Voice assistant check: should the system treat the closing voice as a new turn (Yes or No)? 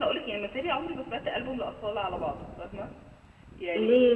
Yes